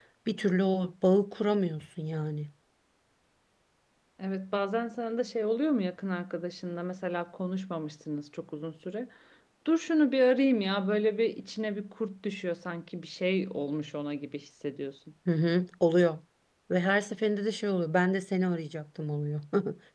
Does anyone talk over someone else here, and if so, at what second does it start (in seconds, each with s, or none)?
none